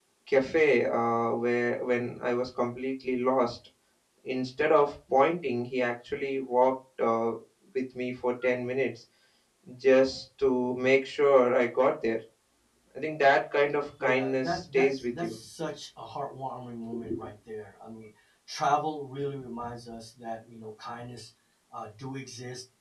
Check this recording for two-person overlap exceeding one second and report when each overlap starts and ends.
14.0-15.4

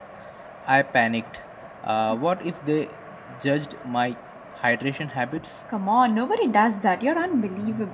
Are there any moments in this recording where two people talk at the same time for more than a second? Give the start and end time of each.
none

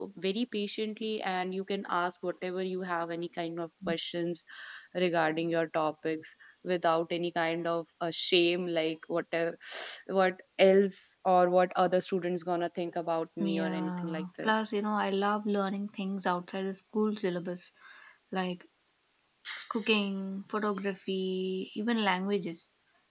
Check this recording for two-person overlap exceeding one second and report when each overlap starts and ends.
13.4-14.7

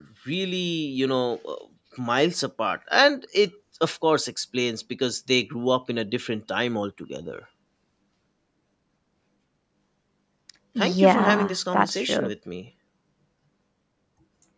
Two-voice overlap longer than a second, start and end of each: 10.8-12.3

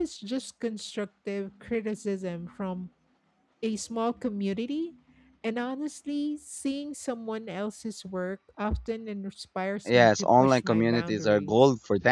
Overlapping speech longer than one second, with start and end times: 9.9-11.6

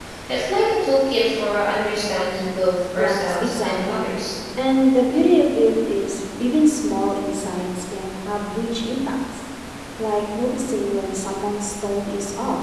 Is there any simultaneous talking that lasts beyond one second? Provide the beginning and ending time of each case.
3.0-4.2

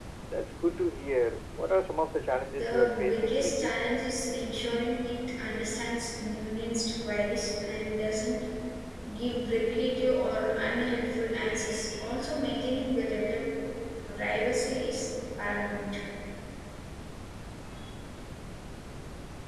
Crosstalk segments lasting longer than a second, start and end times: 2.5-3.8

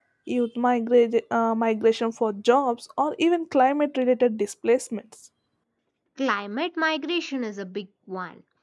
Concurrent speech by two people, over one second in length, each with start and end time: none

